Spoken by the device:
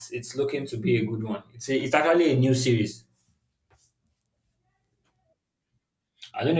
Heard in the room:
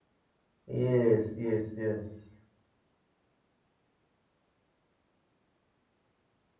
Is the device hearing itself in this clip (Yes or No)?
No